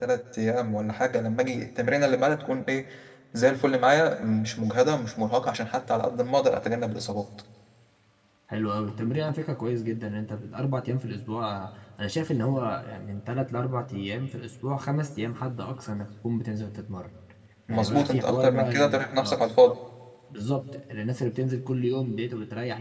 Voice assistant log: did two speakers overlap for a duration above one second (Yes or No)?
Yes